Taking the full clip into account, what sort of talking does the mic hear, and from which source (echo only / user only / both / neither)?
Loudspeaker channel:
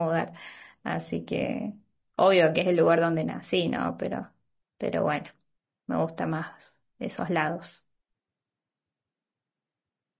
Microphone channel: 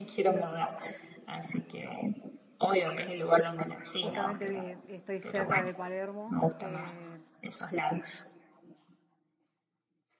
both